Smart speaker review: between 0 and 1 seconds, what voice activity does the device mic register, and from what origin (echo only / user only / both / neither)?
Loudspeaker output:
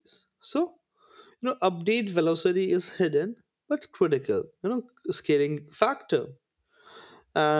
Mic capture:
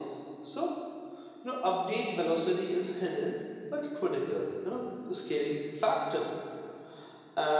echo only